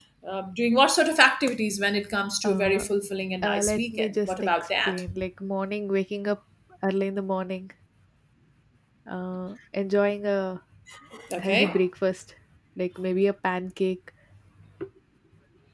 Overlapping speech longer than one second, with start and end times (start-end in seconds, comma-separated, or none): 3.4-5.0